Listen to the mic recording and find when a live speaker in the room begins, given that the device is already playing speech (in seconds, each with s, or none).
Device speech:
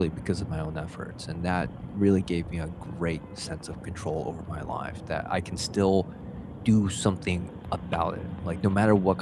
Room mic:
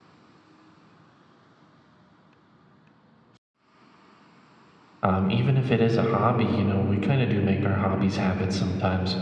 5.0 s